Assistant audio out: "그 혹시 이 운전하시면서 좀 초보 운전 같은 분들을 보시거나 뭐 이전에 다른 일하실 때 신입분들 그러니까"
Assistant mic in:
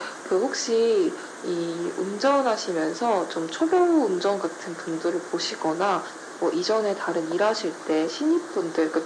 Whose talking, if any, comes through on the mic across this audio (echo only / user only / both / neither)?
echo only